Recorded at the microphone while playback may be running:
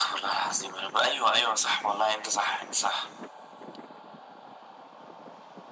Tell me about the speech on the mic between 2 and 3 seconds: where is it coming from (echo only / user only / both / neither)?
echo only